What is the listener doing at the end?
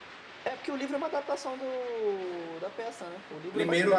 taking over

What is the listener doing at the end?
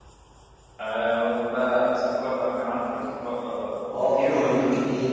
taking over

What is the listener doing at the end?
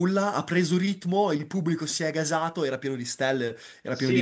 taking over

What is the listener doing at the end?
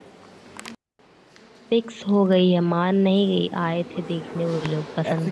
taking over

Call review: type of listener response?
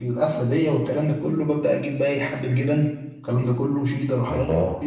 listening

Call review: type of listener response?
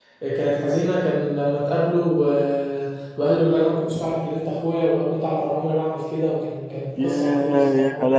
taking over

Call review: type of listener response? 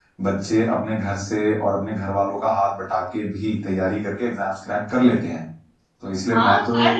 taking over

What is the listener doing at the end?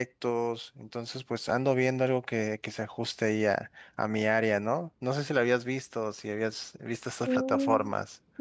taking over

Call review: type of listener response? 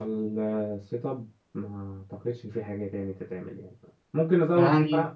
listening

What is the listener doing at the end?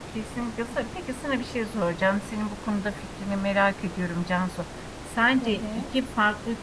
listening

